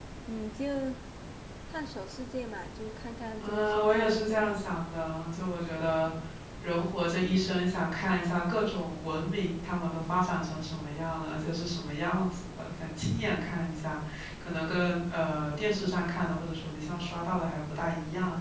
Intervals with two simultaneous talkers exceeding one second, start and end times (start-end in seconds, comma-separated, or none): 3.4-4.8